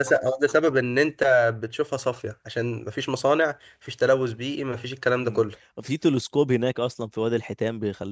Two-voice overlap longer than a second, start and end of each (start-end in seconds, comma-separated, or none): none